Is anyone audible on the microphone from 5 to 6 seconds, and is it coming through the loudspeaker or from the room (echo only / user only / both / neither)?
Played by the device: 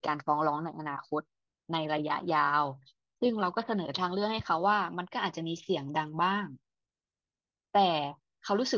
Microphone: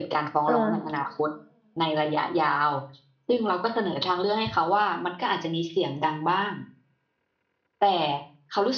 echo only